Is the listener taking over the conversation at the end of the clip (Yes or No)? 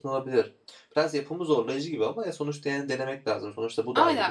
Yes